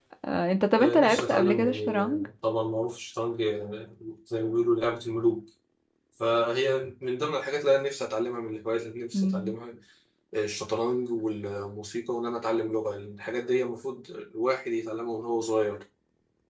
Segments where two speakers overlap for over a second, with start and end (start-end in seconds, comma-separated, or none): 0.8-2.3